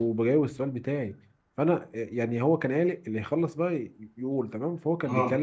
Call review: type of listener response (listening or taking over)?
listening